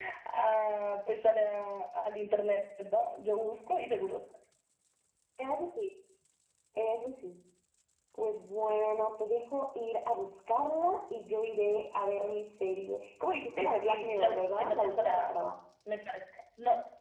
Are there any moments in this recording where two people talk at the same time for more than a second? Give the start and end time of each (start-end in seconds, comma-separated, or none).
13.6-15.3